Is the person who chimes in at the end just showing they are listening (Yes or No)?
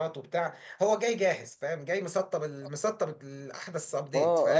No